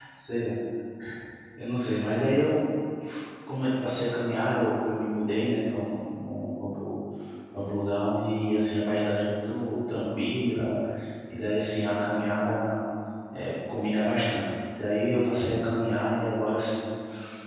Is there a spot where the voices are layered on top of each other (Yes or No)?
No